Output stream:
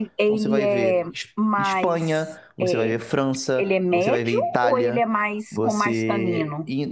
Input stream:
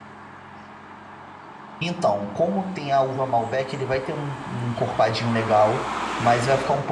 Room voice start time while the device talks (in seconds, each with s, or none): 1.8 s